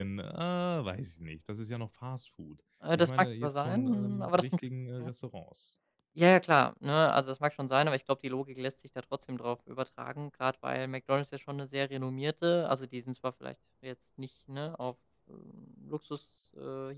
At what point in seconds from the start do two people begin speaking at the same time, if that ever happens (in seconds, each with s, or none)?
2.8 s